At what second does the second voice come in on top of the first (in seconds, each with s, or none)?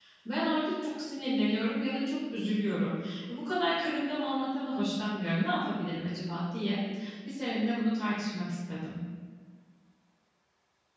none